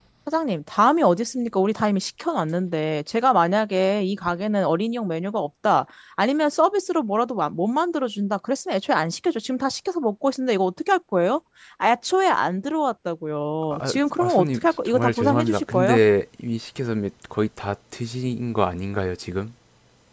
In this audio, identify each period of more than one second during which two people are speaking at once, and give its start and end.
13.7-16.0

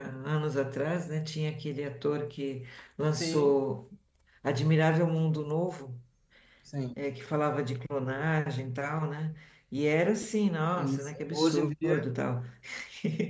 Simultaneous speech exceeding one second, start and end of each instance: 10.8-12.0

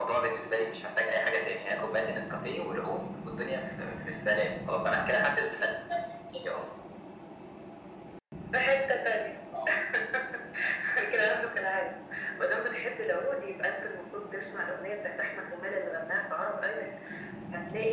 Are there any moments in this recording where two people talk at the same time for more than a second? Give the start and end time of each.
none

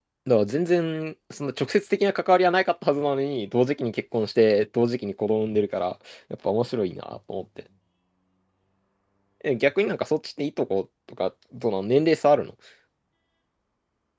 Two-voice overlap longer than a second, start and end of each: none

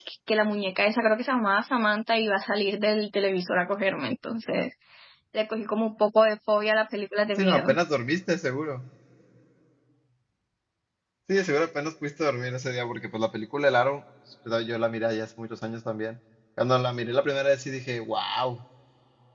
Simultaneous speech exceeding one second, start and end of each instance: none

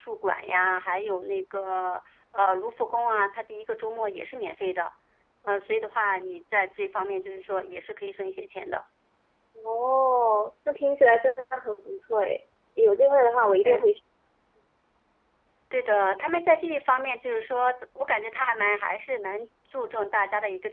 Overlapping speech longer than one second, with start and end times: none

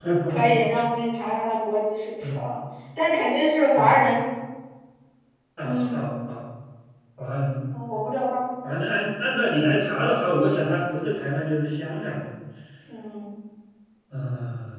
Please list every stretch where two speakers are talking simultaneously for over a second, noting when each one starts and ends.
none

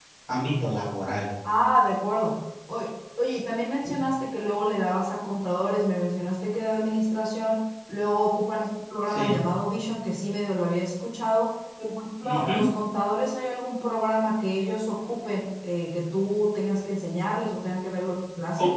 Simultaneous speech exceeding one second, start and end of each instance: none

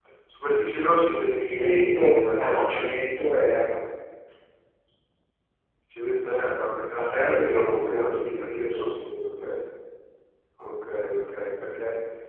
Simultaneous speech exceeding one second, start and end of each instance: 1.5-2.8, 7.0-9.1

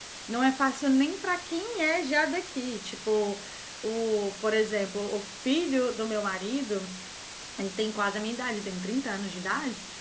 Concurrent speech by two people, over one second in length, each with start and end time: none

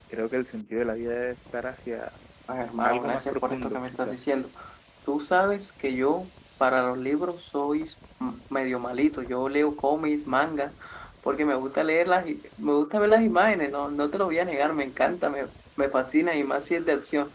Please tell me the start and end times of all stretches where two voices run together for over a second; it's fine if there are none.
2.8-4.2

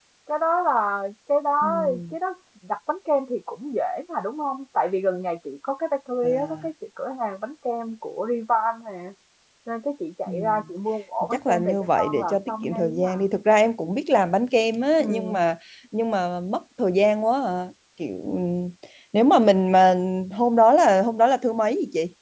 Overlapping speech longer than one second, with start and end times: 11.3-13.2

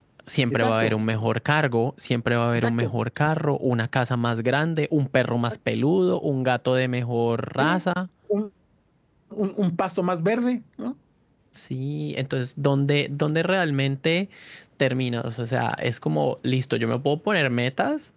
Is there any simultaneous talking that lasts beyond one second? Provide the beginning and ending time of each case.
none

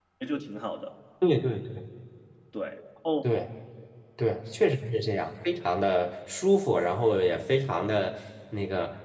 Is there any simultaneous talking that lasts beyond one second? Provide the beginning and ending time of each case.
none

